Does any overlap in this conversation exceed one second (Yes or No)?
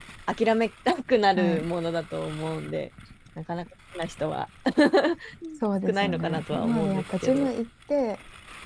Yes